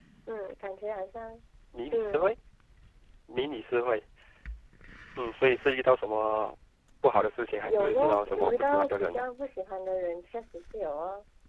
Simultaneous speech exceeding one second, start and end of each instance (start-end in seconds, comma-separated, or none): 7.6-9.3